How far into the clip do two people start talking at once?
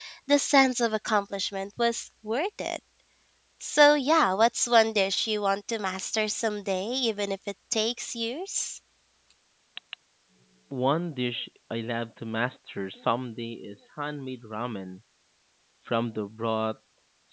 none

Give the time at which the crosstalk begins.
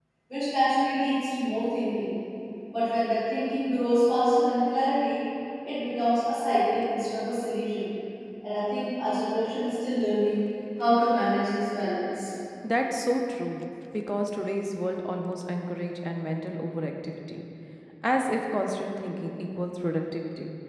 none

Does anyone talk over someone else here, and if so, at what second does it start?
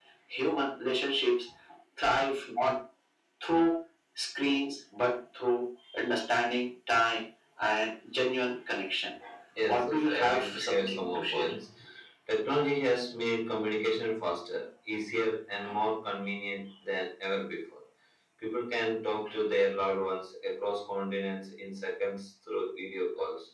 9.7 s

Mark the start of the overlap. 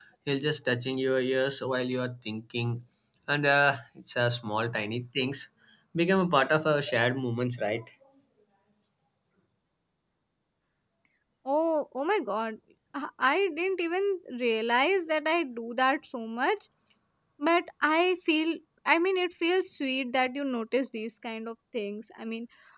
none

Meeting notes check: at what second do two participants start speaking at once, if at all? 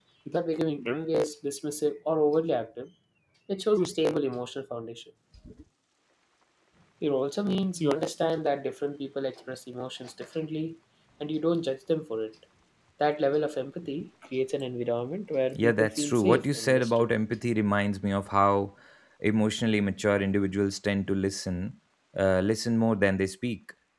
15.5 s

